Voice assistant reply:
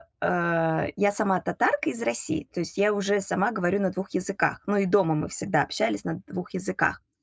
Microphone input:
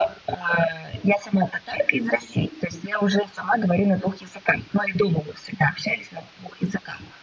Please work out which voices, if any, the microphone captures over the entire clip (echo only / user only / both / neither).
echo only